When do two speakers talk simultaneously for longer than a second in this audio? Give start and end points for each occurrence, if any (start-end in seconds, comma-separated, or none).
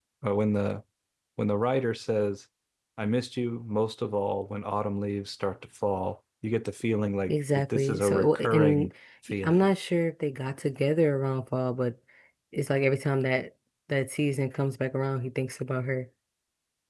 7.3-8.9